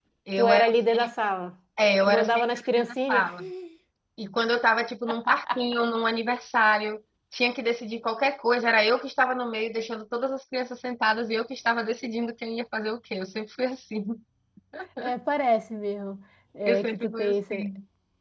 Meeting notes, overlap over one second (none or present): present